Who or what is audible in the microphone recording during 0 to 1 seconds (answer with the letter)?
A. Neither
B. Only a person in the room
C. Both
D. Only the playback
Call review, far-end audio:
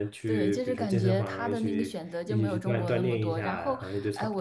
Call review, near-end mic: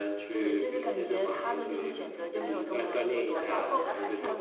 D